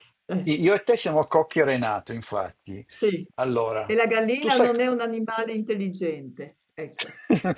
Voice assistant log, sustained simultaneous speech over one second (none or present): none